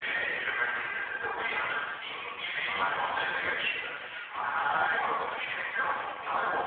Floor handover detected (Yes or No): No